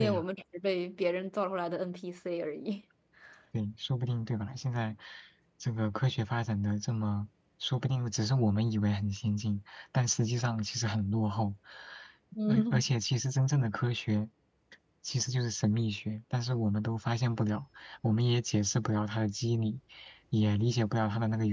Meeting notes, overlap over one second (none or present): none